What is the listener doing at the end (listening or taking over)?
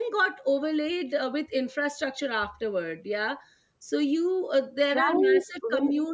listening